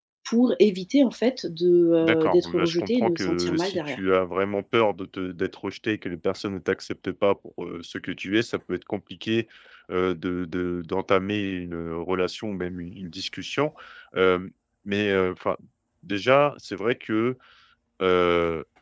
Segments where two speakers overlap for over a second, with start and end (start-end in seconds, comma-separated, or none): 2.0-4.0